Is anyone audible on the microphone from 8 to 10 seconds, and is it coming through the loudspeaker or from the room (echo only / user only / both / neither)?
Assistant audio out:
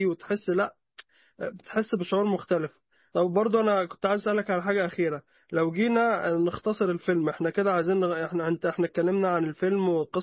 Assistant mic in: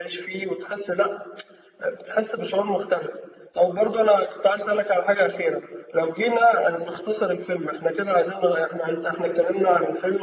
echo only